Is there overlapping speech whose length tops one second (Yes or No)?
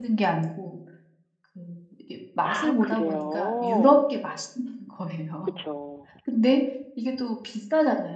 Yes